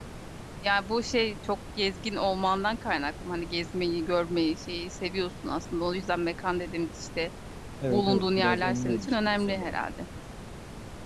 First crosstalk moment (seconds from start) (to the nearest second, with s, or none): 8 s